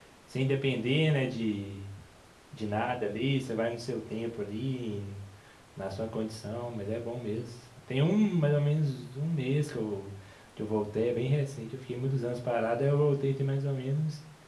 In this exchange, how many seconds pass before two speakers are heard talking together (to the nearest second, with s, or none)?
none